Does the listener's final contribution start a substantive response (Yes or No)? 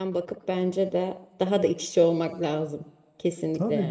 Yes